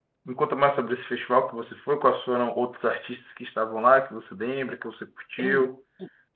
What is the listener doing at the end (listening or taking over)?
taking over